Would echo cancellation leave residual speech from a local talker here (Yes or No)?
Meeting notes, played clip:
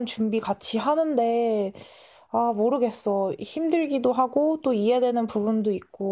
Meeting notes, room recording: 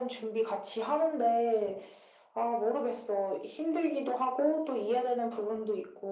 No